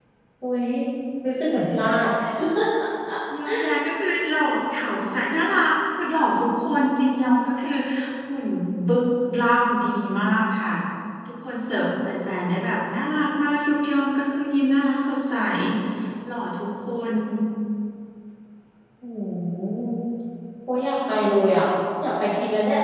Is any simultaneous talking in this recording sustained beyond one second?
No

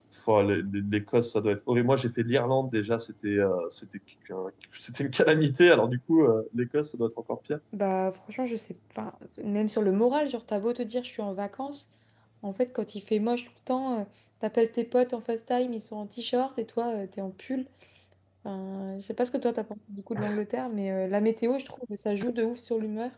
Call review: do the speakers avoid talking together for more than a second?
Yes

